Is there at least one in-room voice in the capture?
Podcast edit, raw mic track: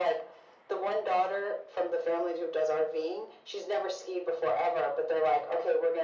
No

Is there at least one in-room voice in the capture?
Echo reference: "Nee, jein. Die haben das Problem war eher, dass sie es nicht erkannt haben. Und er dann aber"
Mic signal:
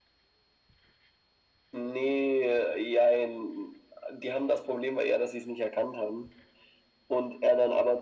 No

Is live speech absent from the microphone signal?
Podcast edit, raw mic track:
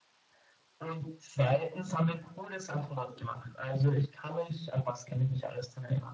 Yes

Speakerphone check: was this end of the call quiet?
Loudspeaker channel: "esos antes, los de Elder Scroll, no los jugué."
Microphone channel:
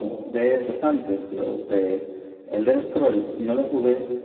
Yes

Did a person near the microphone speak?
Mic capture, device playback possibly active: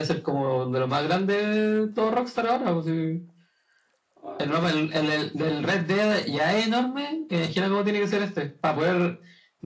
Yes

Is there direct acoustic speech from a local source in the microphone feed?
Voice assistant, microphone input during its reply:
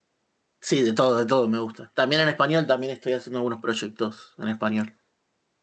Yes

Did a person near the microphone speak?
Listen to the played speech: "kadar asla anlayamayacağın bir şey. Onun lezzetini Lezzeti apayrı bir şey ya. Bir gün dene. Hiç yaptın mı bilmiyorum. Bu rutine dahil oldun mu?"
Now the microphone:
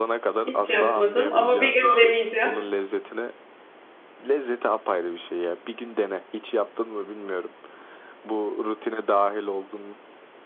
Yes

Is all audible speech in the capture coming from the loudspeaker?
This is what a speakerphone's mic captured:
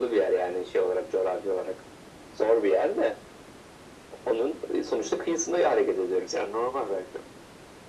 Yes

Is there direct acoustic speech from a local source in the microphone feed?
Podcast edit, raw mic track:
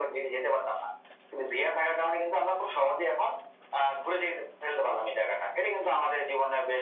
No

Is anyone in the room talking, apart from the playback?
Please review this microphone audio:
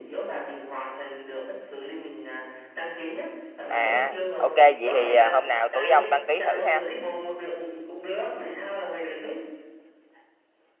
Yes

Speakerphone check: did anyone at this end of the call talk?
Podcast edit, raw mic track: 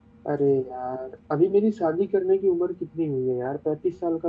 Yes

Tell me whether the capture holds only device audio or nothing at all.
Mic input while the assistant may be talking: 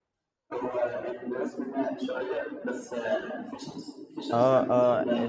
No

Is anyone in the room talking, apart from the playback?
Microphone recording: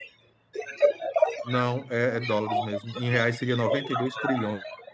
Yes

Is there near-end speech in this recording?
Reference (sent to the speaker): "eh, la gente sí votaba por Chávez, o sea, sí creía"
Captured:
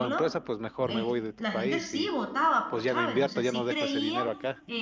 Yes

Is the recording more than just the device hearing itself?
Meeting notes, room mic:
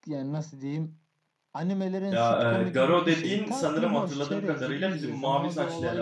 Yes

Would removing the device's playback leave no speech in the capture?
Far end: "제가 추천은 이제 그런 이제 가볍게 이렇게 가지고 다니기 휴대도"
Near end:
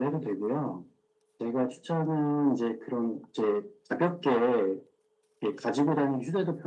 Yes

